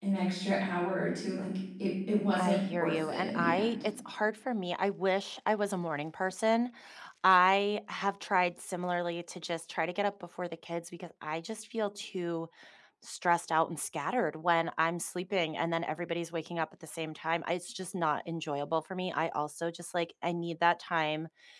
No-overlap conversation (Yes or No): No